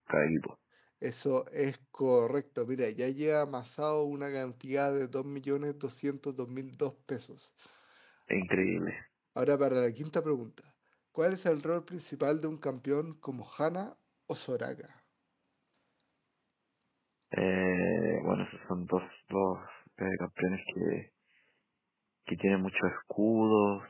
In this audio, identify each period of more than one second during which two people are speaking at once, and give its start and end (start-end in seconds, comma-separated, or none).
none